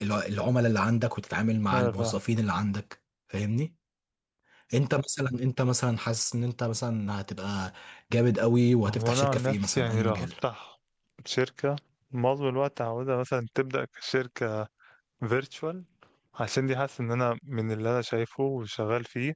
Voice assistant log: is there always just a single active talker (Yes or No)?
No